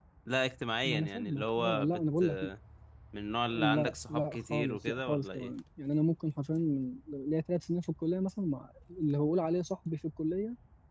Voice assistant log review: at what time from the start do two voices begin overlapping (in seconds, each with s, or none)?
0.8 s